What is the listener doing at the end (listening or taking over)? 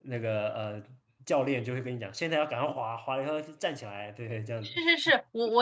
taking over